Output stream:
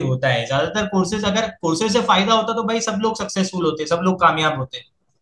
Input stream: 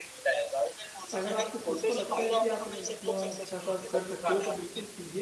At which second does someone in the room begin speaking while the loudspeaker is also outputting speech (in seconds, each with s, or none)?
1.1 s